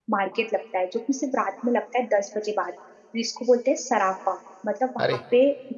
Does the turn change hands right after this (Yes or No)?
No